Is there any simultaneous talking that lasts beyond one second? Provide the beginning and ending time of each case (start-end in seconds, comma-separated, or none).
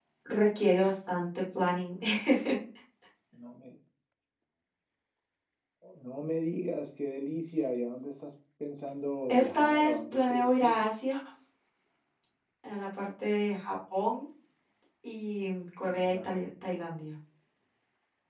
9.3-10.7